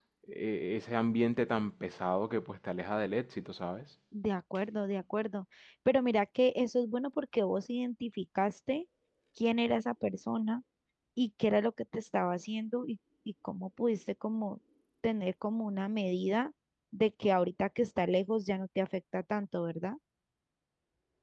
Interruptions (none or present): none